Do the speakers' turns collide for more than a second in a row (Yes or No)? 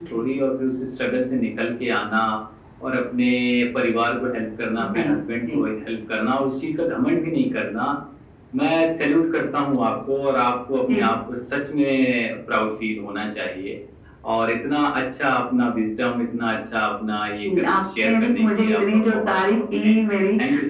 Yes